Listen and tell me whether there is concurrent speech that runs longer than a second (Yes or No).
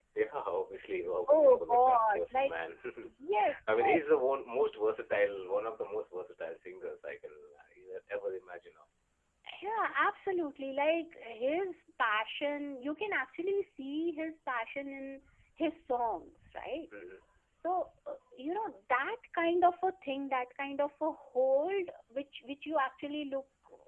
Yes